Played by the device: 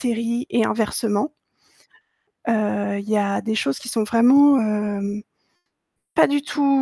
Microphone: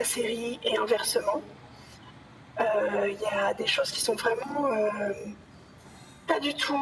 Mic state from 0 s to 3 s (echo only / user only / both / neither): echo only